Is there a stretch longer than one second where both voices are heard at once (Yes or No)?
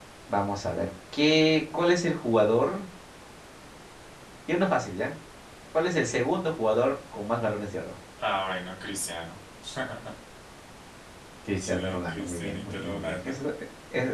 Yes